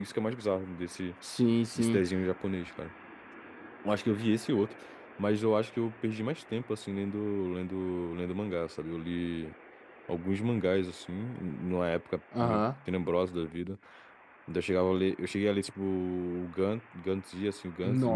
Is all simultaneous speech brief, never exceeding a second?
Yes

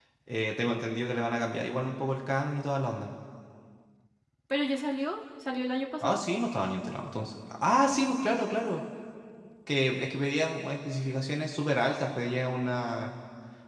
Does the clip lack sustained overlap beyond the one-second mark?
Yes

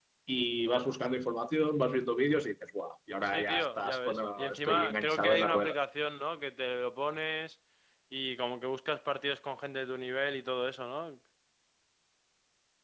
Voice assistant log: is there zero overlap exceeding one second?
No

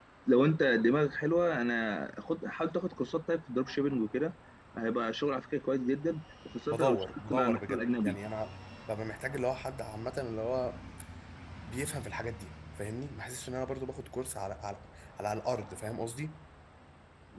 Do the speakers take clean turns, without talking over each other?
No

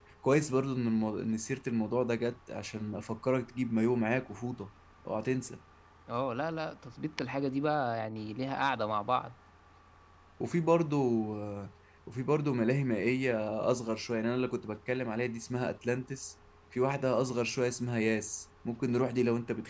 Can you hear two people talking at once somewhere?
No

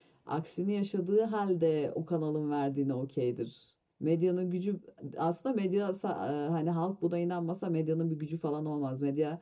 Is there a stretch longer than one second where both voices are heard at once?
No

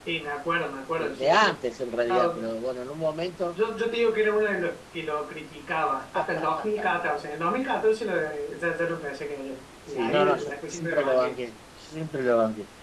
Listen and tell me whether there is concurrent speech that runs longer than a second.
Yes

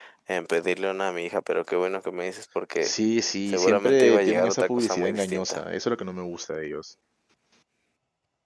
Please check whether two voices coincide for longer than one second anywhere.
Yes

